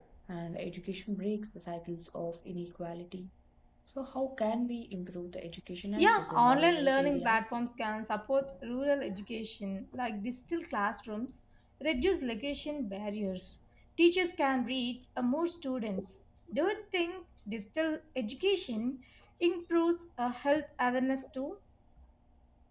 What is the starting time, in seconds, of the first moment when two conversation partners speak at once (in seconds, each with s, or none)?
6.0 s